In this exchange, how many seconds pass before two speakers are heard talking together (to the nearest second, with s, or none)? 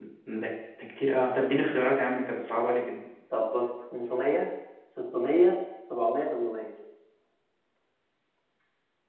none